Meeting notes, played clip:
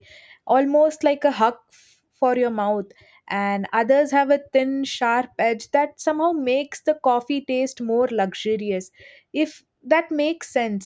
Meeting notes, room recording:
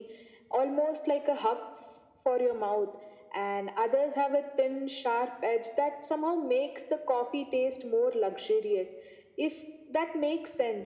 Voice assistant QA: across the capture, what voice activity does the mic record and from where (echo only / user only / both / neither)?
echo only